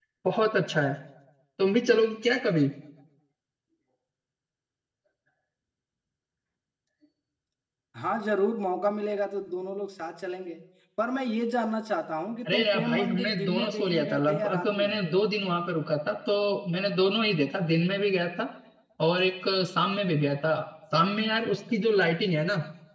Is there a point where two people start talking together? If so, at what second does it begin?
12.4 s

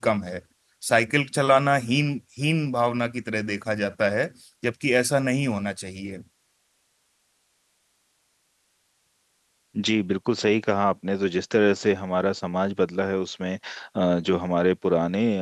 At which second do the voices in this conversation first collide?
none

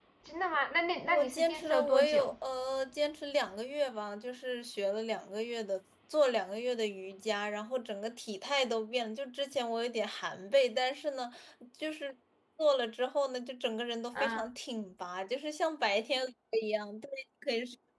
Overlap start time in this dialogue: 1.1 s

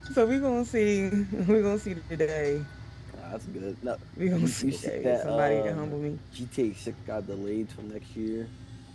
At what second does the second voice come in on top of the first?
4.4 s

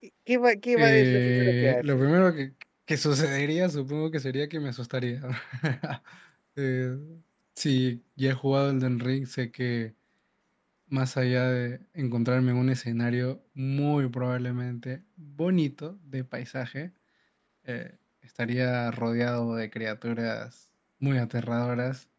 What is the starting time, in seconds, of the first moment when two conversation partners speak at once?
0.8 s

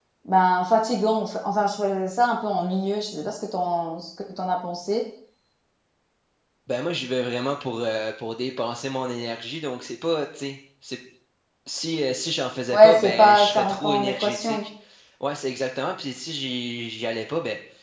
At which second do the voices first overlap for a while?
12.7 s

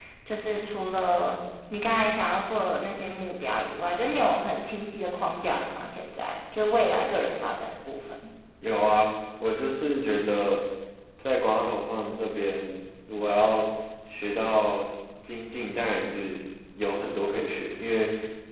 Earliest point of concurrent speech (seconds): none

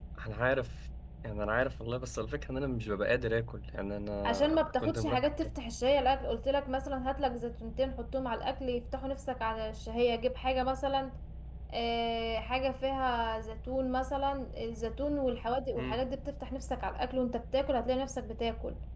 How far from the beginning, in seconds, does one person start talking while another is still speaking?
4.2 s

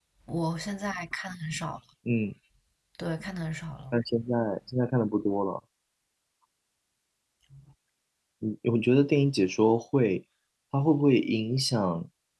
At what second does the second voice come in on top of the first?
none

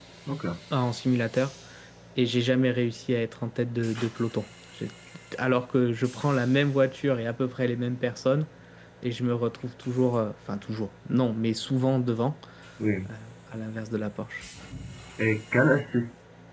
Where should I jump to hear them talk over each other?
none

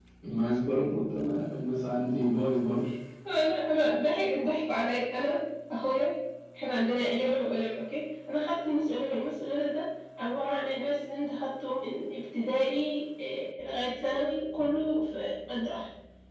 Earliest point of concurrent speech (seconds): none

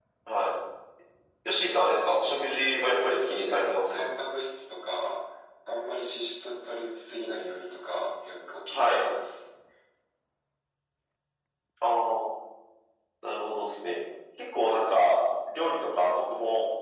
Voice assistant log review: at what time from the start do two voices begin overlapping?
2.1 s

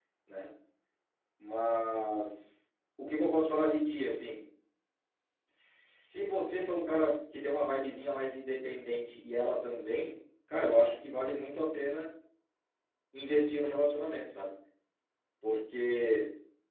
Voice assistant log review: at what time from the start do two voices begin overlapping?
none

